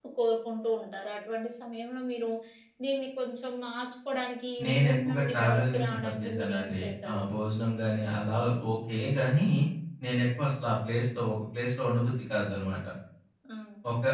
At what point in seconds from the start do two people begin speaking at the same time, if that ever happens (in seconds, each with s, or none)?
4.6 s